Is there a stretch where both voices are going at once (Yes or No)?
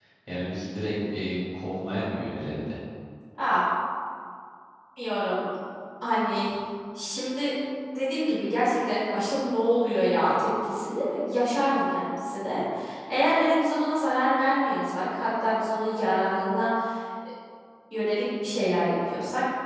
No